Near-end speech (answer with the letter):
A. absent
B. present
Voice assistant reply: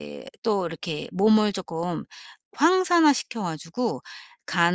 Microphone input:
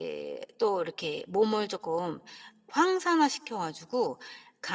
A